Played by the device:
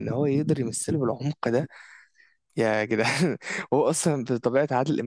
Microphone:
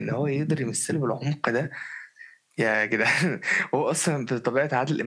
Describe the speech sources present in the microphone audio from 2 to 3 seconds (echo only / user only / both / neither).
echo only